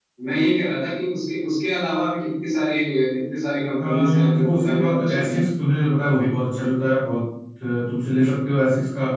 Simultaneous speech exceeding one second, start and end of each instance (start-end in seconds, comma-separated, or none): 3.8-5.4